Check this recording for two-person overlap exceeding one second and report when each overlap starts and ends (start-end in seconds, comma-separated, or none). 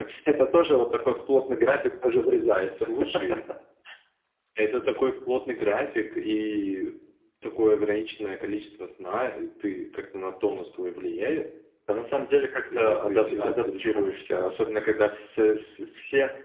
12.8-14.1